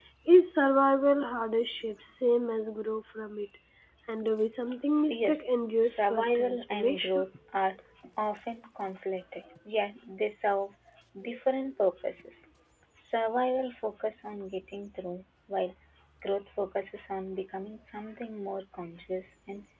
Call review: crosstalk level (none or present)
present